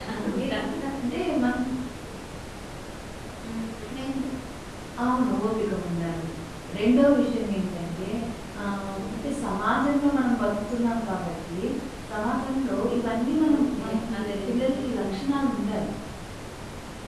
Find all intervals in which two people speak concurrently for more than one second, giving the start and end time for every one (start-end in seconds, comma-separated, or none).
13.5-15.1